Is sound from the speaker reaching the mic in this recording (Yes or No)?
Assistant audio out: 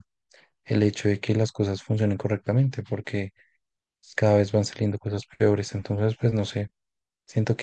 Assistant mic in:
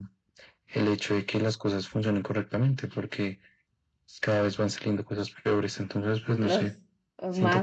Yes